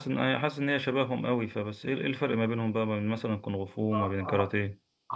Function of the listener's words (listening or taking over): taking over